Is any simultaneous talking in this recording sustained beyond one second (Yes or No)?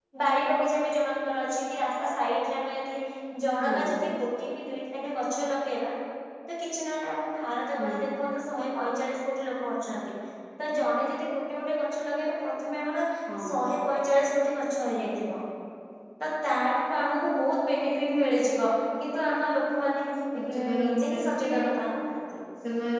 Yes